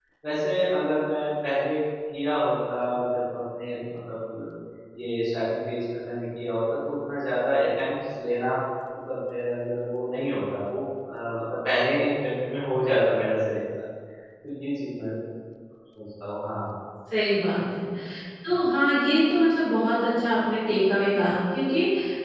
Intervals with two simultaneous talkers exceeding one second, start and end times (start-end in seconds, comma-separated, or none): none